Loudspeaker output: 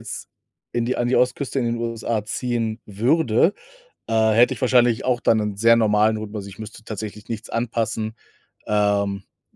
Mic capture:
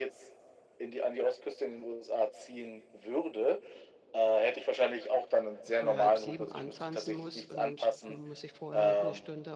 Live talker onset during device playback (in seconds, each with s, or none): 5.7 s